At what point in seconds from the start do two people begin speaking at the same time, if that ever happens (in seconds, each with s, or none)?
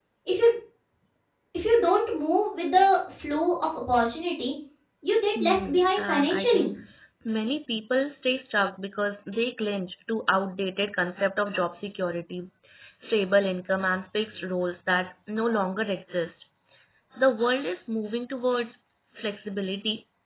5.4 s